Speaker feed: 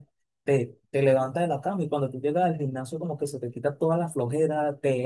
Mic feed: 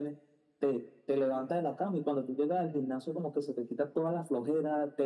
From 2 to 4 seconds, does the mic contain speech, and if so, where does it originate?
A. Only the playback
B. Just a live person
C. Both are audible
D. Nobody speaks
A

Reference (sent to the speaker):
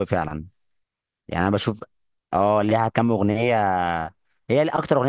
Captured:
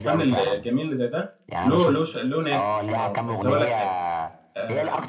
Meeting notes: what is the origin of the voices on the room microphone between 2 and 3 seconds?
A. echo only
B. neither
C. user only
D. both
D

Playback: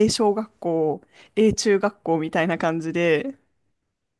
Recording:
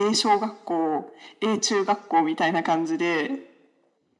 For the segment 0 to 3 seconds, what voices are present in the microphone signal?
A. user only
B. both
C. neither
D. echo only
D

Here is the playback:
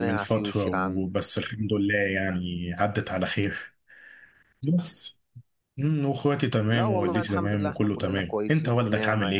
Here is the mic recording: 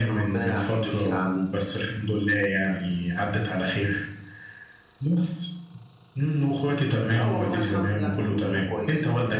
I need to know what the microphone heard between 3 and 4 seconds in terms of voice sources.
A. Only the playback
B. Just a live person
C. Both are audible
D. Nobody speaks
A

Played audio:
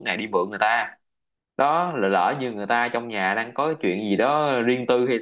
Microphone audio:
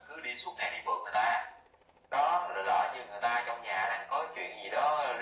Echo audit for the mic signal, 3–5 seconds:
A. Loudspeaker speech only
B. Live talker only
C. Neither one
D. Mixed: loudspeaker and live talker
A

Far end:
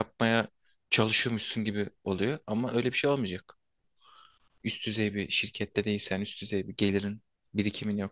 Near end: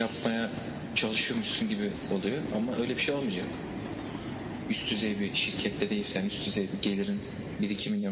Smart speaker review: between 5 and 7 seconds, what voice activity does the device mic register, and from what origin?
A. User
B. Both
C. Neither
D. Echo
D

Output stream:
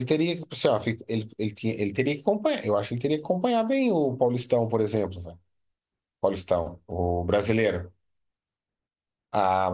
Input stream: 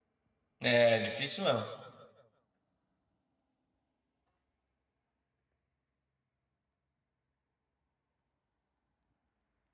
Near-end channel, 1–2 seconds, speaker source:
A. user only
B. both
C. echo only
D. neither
A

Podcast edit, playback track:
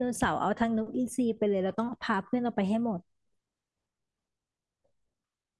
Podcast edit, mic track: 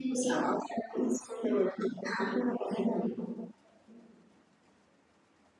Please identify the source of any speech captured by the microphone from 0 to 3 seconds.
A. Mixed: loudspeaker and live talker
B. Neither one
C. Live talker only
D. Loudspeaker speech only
D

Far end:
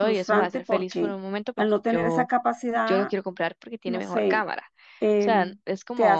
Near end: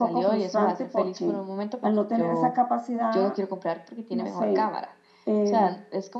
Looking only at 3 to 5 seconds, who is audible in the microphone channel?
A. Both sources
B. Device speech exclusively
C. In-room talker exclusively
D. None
B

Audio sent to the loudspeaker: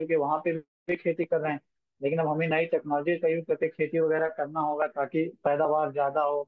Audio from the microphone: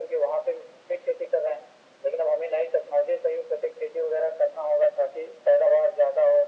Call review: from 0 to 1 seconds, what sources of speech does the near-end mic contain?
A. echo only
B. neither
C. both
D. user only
A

